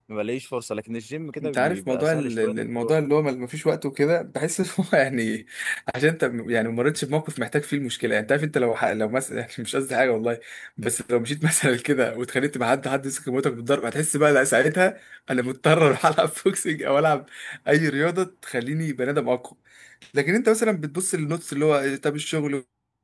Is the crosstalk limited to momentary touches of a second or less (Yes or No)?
No